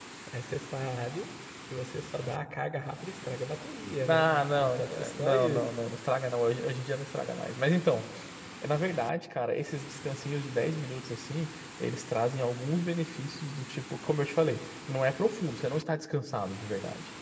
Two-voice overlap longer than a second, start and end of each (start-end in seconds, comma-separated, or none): 4.1-5.6